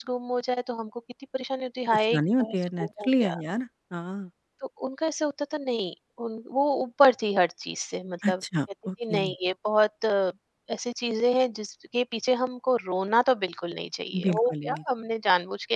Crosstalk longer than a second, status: present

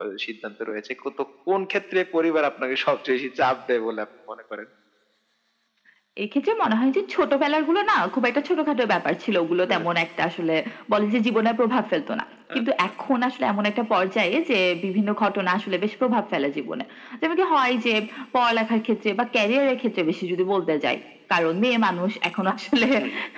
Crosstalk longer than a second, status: none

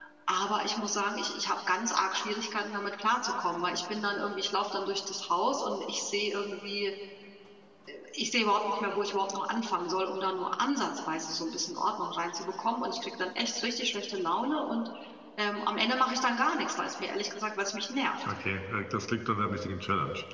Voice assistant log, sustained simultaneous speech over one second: none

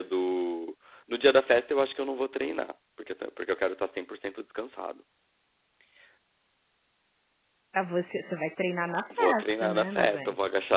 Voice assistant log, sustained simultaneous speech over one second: present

